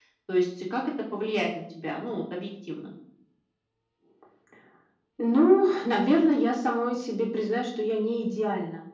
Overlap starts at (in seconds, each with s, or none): none